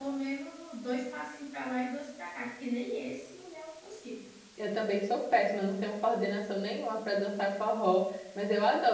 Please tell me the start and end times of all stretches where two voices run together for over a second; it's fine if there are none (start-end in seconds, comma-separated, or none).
none